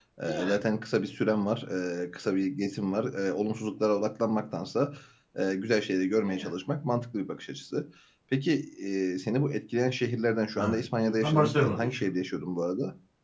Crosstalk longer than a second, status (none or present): present